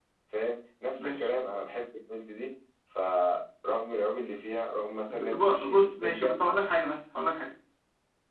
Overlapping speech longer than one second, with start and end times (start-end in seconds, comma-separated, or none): 5.1-6.3